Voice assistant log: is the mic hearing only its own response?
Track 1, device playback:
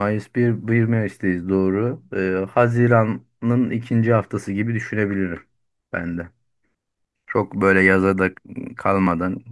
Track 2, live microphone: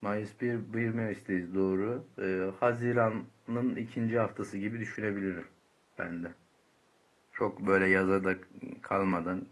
Yes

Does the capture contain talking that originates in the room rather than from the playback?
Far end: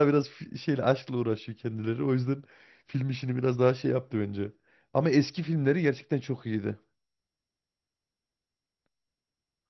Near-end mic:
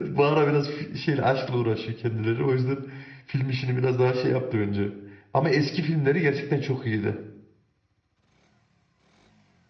No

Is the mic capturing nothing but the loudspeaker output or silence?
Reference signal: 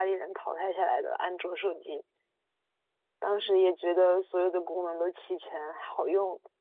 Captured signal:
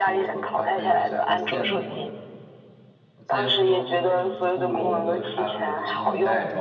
No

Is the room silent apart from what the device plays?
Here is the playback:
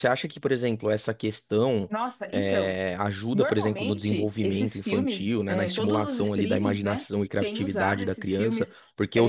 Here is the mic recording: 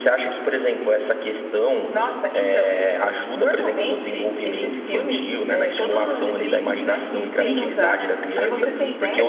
No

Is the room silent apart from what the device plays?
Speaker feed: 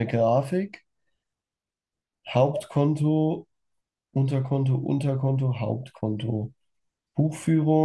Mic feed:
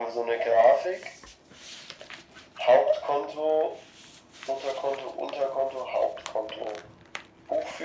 Yes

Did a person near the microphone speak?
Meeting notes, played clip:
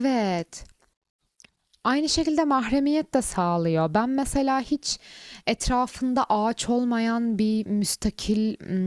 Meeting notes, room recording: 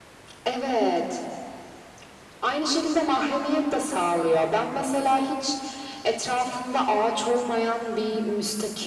No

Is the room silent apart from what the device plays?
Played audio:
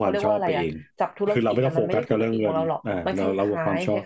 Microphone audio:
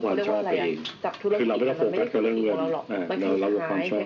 Yes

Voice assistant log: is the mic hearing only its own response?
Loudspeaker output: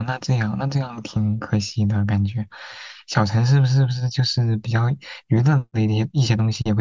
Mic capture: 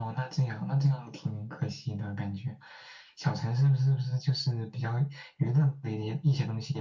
Yes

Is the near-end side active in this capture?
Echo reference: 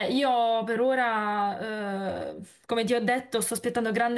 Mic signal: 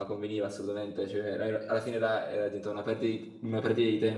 Yes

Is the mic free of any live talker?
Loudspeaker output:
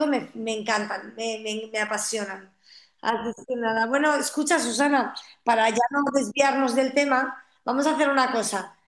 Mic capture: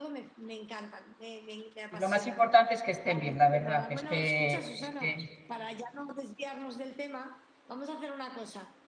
No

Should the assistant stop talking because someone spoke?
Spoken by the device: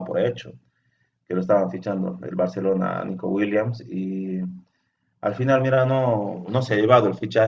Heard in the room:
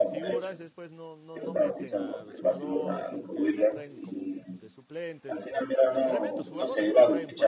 Yes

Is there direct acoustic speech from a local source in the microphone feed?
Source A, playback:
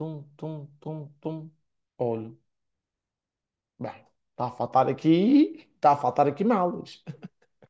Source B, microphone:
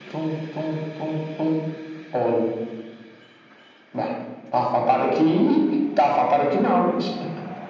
No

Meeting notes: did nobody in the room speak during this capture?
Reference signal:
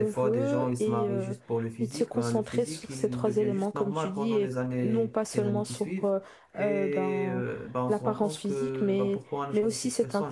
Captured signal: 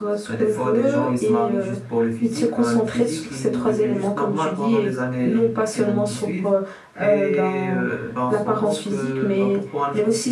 Yes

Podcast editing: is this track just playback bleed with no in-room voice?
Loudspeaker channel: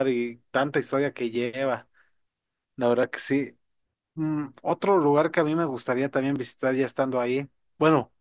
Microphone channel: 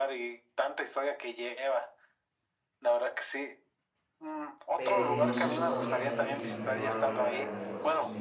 No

